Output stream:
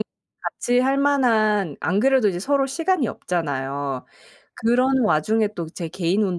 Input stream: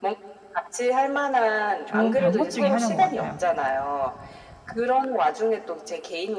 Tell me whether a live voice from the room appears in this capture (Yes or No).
Yes